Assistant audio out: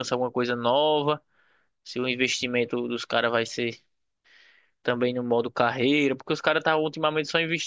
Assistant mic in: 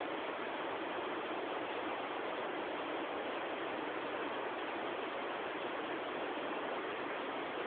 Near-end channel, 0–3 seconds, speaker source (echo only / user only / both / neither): neither